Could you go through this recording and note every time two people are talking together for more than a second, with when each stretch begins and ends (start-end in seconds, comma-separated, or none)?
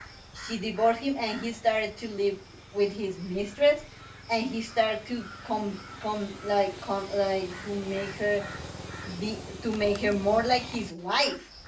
none